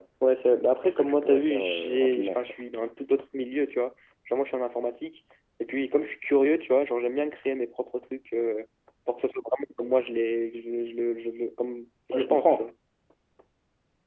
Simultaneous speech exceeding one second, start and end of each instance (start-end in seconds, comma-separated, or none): 0.8-2.4